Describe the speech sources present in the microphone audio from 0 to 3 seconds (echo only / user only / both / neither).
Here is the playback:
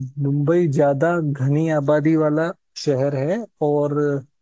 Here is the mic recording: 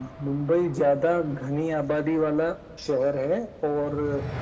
echo only